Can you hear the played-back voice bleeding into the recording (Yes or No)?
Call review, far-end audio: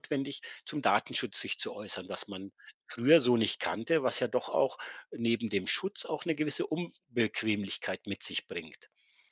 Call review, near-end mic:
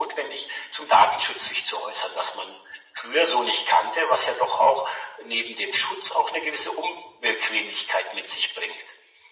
Yes